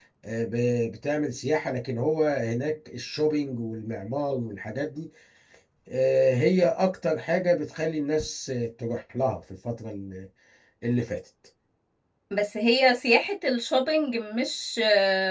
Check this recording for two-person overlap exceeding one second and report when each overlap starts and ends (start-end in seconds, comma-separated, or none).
none